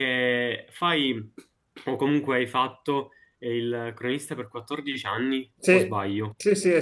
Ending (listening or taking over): taking over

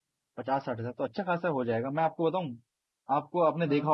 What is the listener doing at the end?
listening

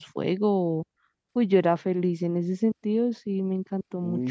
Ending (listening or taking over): taking over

